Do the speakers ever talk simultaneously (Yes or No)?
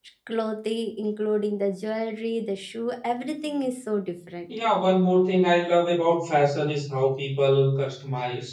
No